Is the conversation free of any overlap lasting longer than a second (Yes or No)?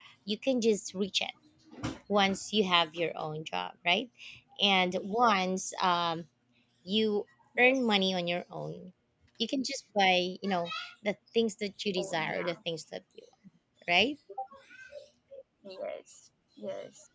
Yes